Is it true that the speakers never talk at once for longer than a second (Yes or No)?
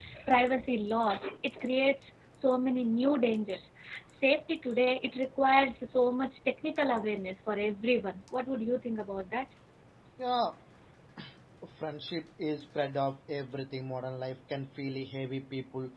Yes